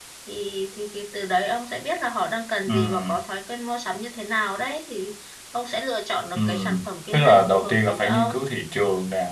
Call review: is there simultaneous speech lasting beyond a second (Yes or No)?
Yes